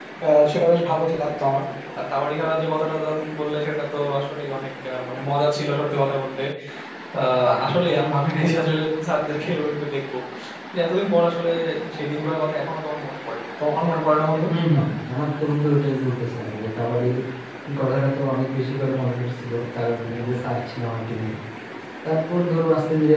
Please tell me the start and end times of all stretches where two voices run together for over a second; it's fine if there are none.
none

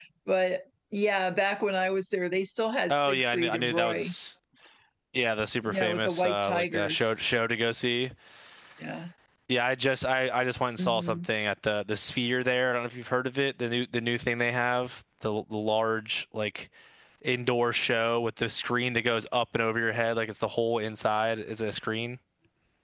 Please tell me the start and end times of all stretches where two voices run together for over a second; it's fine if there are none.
2.9-4.1, 5.6-7.1

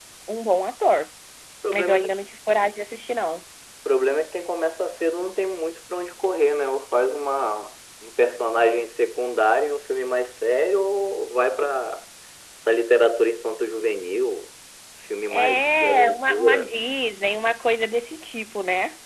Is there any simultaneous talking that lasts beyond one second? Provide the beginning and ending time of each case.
15.3-16.8

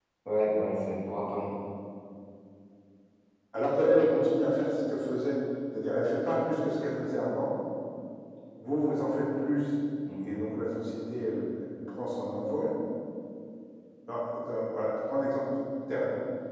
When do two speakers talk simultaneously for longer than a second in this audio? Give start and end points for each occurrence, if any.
none

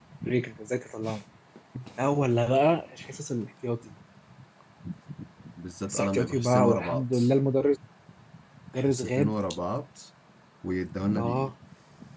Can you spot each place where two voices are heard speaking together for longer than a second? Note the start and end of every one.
5.9-7.1

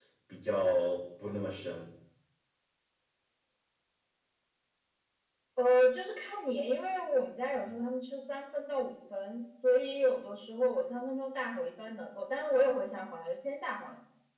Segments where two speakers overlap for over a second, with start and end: none

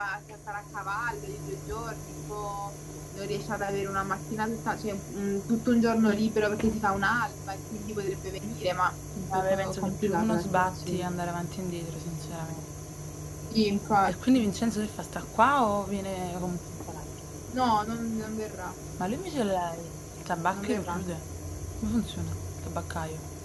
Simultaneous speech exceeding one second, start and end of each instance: 9.3-11.1

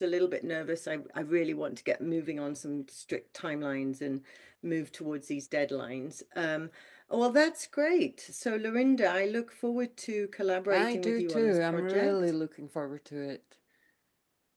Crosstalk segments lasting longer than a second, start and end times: 10.7-12.2

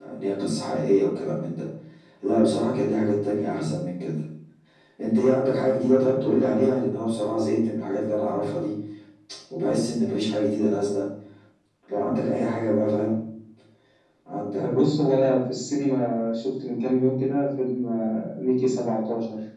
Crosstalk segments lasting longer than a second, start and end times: none

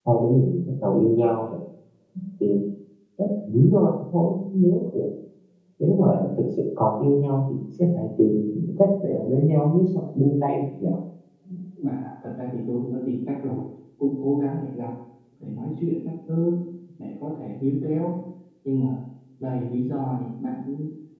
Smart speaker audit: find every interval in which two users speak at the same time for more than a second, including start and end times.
none

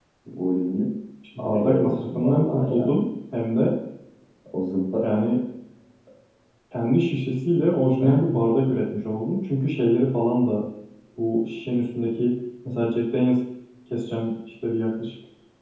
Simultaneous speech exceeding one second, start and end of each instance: 1.4-3.0

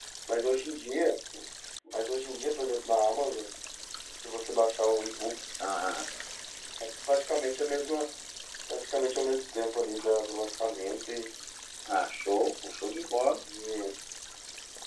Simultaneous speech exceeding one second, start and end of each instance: none

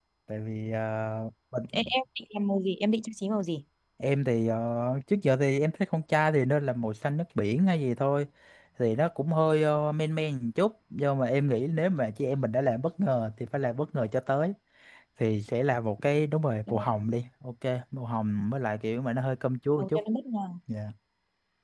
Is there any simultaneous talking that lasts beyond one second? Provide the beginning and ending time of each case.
none

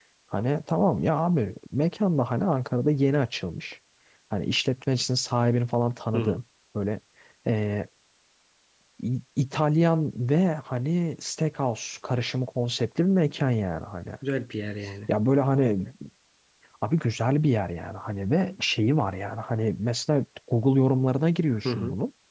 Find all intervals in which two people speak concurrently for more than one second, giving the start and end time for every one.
none

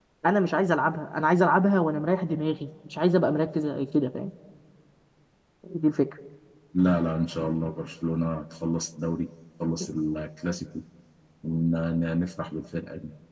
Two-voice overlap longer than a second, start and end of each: none

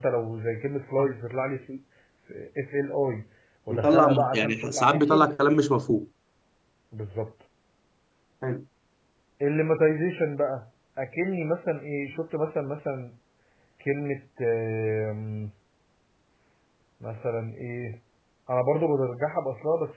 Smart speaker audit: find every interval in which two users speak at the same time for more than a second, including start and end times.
3.7-5.3

